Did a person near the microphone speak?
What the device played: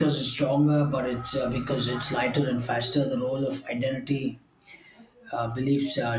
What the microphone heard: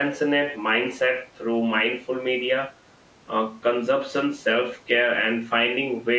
Yes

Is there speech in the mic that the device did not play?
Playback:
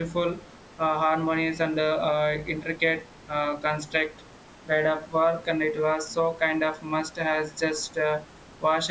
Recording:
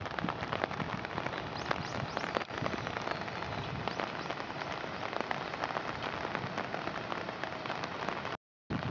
No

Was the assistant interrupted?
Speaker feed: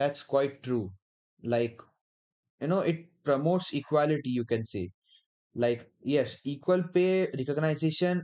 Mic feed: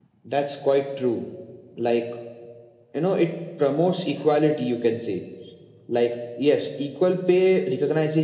No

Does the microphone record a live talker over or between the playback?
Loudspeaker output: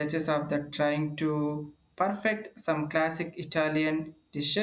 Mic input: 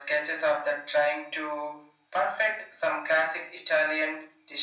No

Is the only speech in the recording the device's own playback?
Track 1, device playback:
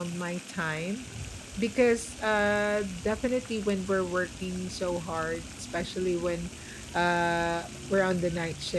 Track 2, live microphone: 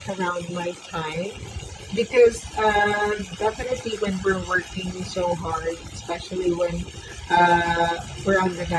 Yes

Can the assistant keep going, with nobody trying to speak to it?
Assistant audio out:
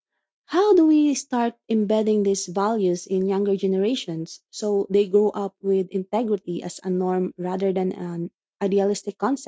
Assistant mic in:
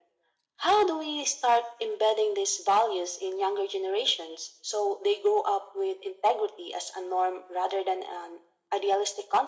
Yes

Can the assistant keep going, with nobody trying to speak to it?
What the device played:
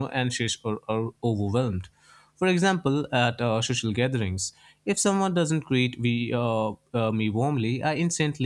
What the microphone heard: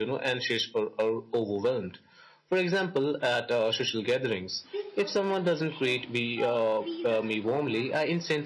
No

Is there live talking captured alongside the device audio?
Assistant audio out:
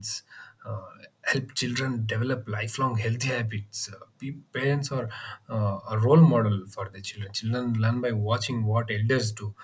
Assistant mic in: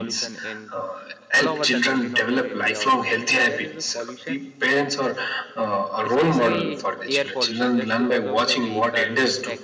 Yes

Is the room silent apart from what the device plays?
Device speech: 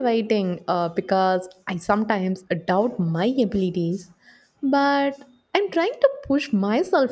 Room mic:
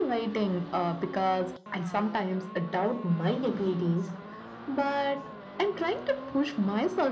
Yes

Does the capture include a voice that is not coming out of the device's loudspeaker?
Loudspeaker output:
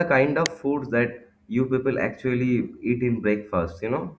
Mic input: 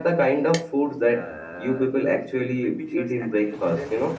Yes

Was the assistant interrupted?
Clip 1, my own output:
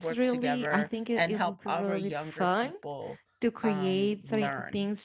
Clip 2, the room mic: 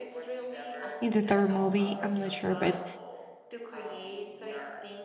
Yes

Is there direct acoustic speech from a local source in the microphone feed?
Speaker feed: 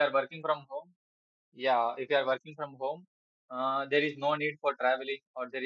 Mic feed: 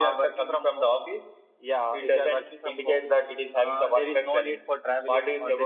Yes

